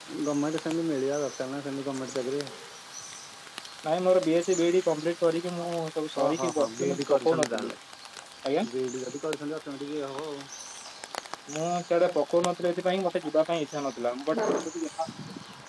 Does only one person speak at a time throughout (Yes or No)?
No